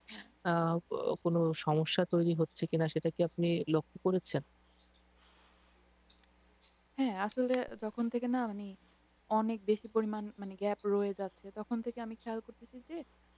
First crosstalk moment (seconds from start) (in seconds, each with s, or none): none